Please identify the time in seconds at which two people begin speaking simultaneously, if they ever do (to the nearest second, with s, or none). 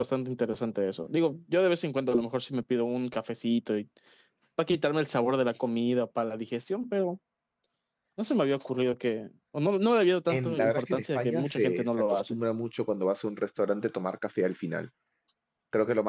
10 s